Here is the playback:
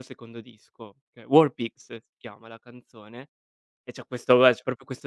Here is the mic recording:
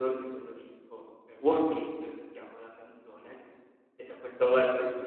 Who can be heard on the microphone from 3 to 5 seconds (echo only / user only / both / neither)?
echo only